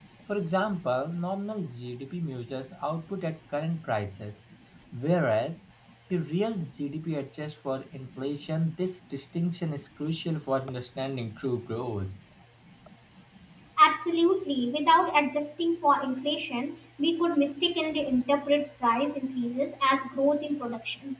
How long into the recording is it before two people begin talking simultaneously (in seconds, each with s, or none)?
none